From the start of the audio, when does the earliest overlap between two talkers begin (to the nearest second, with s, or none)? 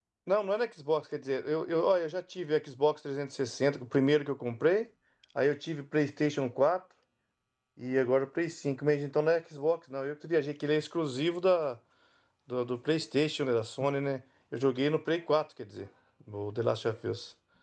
none